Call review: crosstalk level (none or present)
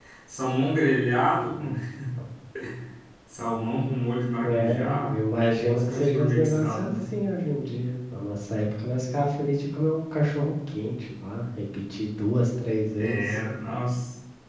present